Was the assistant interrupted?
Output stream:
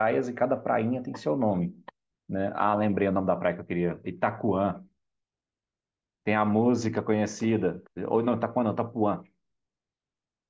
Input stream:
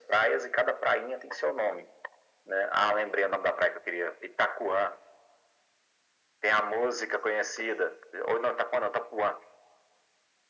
No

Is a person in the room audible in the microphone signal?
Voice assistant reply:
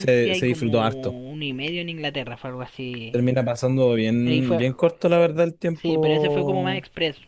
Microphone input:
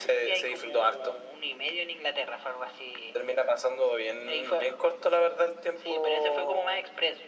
No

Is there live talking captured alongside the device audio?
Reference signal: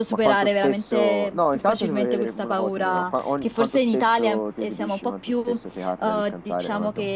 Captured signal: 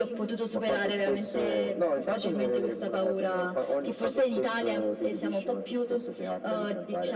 No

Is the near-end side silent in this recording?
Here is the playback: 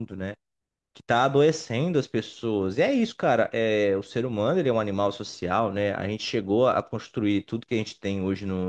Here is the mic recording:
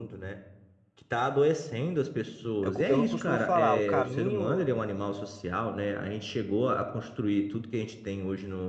No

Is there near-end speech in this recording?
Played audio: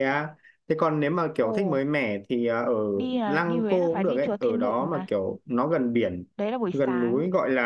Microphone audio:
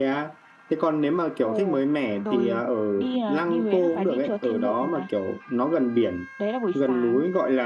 Yes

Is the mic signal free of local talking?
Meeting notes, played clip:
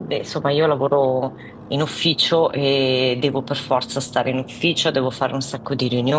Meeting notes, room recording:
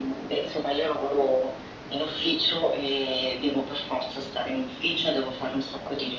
Yes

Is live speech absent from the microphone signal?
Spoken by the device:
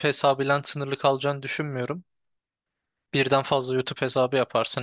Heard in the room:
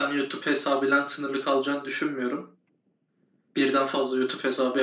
Yes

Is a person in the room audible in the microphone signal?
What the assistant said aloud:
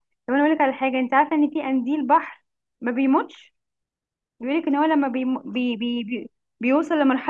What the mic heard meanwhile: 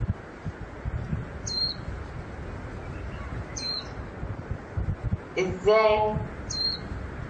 Yes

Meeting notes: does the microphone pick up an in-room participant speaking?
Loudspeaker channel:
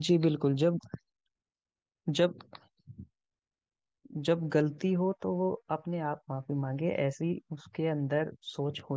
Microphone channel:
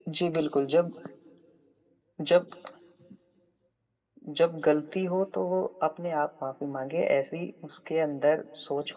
No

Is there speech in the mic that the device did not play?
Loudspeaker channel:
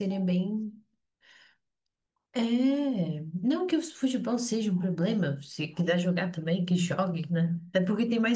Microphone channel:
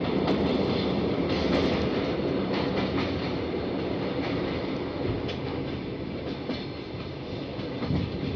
No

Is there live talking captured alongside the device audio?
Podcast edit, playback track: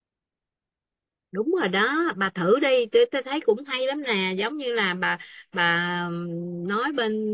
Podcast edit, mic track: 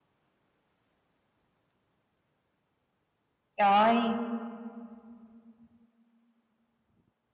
Yes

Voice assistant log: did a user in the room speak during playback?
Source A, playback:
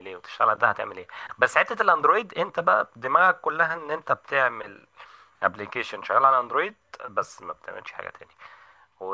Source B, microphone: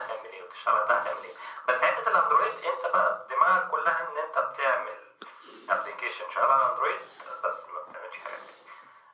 No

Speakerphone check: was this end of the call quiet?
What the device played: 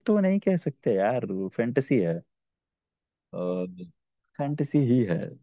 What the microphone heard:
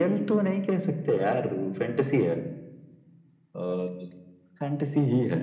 Yes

